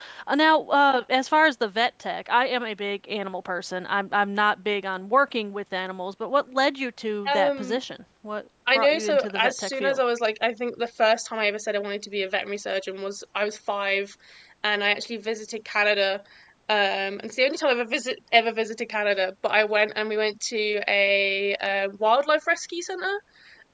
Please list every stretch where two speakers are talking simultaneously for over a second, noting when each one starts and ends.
8.7-10.0

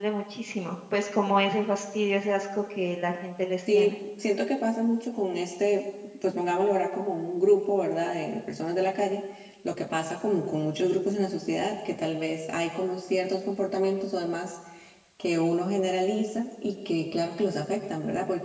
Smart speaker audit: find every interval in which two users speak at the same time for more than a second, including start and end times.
none

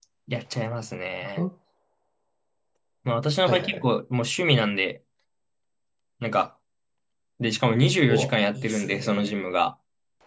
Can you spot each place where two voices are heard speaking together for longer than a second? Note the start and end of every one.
8.1-9.3

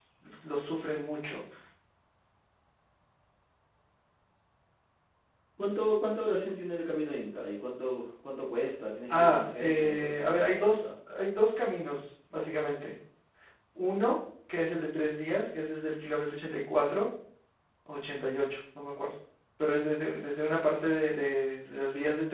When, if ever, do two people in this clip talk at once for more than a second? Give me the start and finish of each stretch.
9.1-10.9

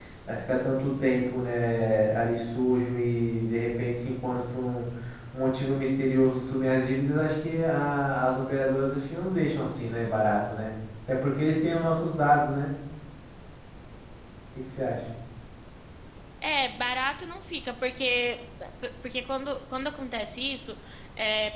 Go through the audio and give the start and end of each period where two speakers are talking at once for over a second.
none

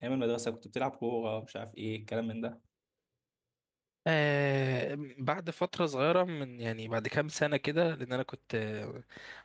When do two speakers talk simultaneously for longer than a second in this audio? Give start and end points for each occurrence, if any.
none

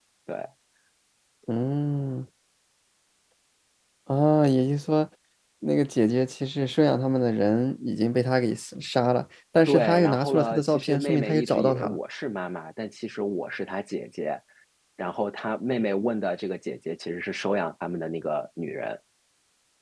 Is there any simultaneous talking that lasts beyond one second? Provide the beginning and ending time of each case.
9.7-12.0

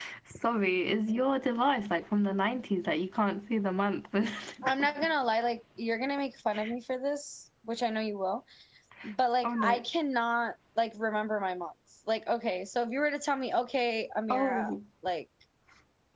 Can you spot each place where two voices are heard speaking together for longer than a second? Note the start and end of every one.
none

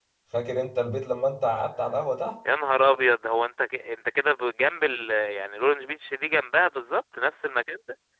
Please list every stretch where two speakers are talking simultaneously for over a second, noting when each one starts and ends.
none

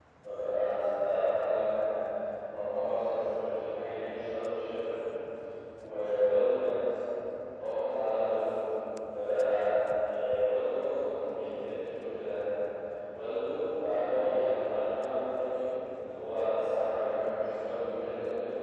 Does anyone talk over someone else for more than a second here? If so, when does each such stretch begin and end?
none

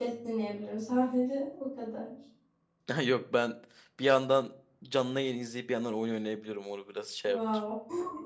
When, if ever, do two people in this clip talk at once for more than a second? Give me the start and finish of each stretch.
none

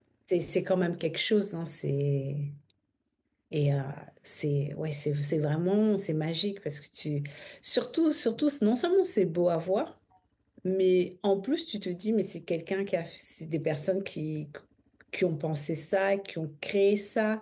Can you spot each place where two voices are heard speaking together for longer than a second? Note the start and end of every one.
none

